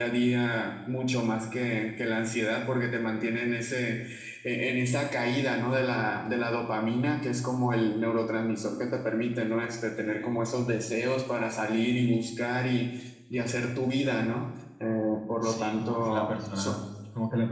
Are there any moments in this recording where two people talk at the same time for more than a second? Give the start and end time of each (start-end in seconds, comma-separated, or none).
15.4-16.8